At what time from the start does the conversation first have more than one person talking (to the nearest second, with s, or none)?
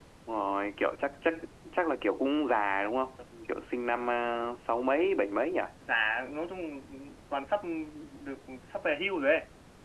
none